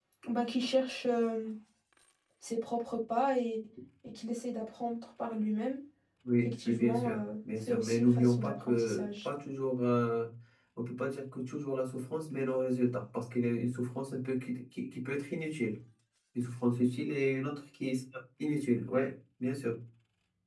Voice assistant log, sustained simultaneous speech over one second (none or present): present